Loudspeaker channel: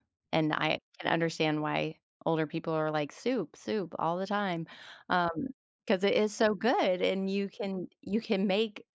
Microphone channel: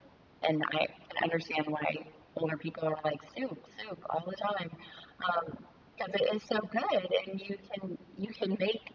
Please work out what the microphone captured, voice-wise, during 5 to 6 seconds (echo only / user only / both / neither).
echo only